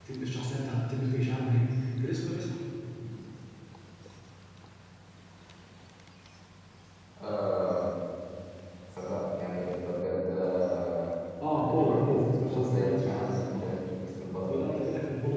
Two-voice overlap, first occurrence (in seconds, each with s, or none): 11.6 s